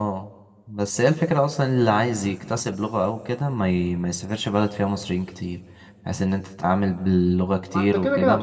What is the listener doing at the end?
taking over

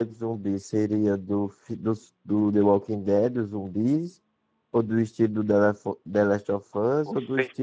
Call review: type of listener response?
listening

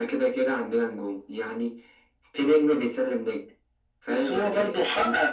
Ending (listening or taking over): taking over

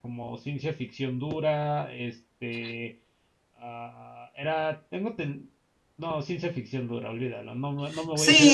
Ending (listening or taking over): taking over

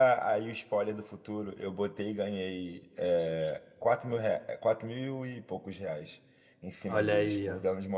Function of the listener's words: taking over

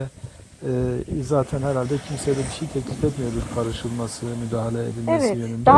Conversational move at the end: taking over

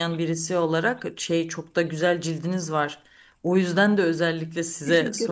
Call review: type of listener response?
listening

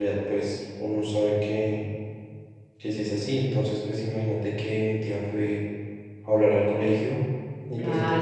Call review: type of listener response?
taking over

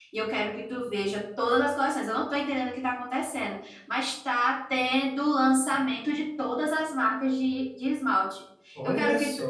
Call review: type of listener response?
listening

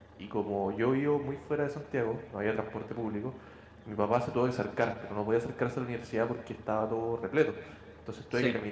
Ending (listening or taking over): listening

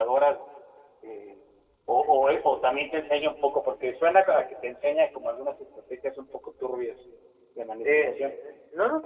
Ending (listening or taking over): taking over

